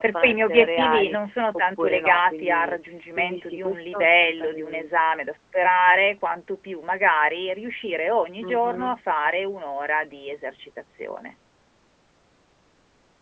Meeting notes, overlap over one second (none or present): present